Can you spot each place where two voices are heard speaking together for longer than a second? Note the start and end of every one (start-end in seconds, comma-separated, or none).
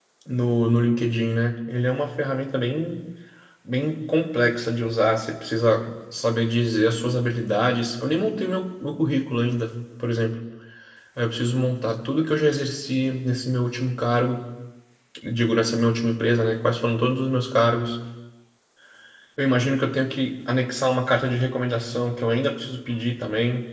none